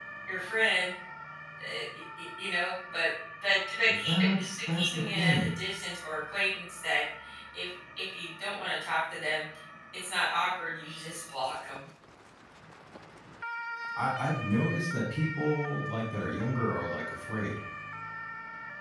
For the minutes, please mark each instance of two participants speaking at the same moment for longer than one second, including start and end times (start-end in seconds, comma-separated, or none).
4.0-5.5